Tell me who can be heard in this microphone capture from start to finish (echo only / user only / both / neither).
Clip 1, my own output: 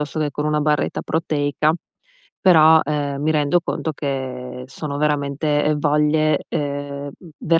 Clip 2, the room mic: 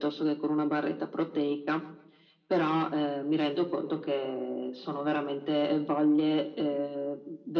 echo only